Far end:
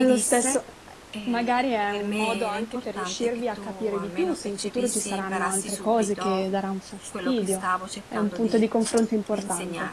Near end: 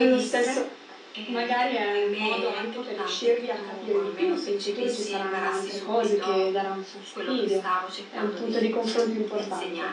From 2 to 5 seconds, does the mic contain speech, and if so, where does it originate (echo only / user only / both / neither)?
echo only